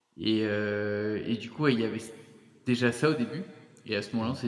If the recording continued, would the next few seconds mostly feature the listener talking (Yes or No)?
No